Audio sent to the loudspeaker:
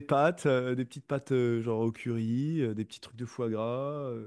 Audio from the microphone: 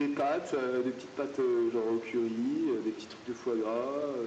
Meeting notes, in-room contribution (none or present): none